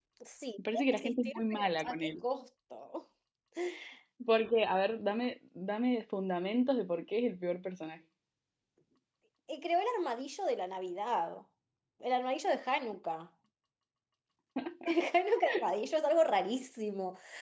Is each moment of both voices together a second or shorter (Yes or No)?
No